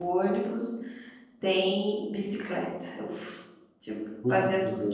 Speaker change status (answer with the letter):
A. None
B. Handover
A